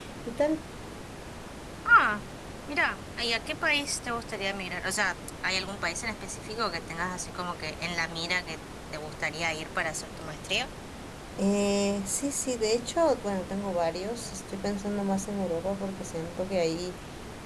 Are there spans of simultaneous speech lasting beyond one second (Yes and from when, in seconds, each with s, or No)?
No